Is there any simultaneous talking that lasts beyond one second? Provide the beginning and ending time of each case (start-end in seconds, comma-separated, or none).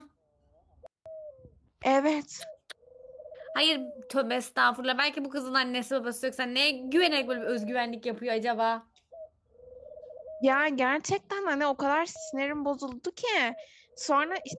none